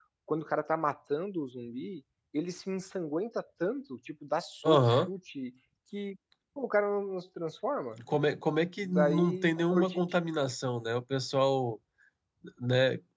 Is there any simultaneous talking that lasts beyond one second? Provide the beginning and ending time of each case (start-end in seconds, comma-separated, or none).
8.8-10.2